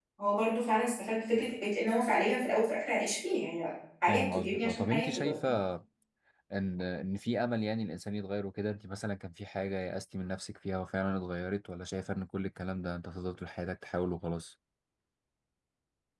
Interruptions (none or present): present